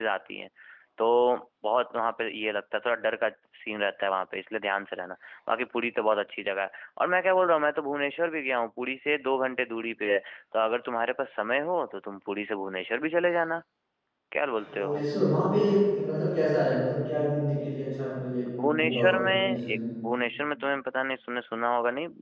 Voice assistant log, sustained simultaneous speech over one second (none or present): present